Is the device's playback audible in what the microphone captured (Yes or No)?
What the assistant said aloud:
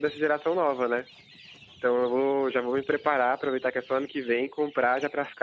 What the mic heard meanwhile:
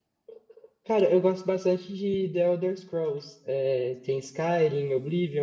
No